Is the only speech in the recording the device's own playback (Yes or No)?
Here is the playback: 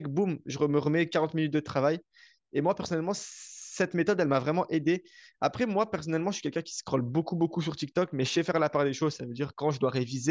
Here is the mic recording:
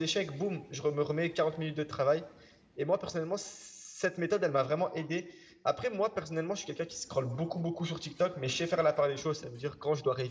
Yes